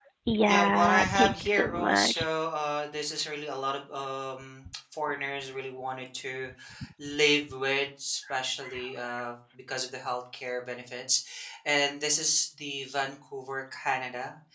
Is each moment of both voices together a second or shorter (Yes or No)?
No